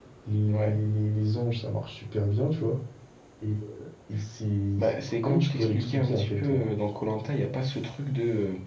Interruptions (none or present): present